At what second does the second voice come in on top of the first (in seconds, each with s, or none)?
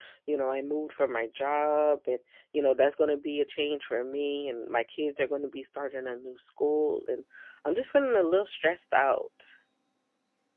none